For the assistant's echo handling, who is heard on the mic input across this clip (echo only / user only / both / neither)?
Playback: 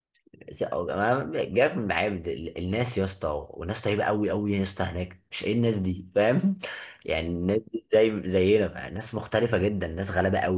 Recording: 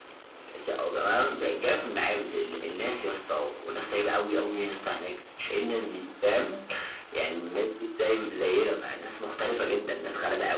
echo only